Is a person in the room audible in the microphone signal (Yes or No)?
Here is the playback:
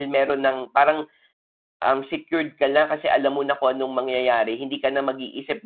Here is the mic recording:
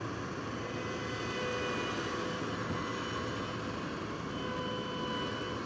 No